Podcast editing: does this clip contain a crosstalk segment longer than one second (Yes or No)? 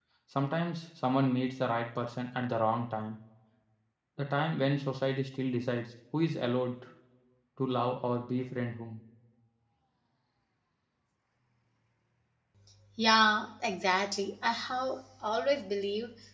No